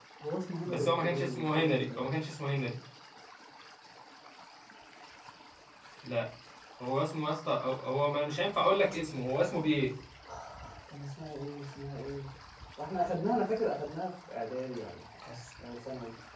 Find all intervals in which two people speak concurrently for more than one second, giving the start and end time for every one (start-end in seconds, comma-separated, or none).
0.6-2.0